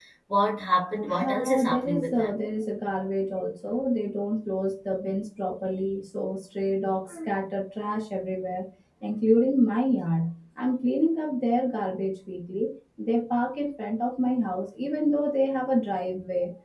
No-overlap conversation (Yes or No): No